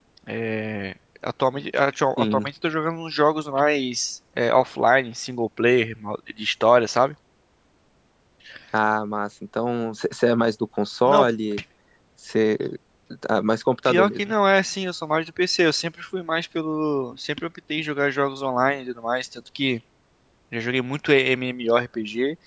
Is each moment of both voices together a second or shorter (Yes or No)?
Yes